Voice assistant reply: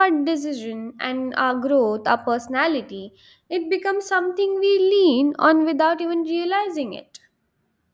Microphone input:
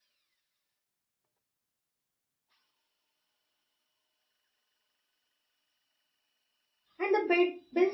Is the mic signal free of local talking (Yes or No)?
No